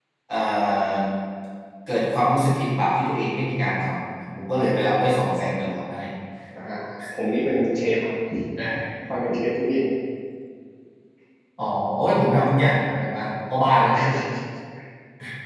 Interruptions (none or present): none